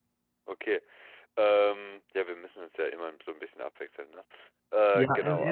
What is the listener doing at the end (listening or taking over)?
taking over